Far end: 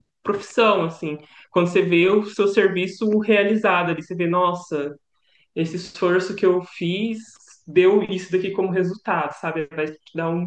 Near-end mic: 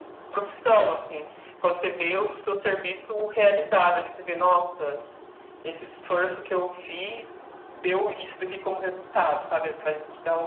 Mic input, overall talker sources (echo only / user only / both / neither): echo only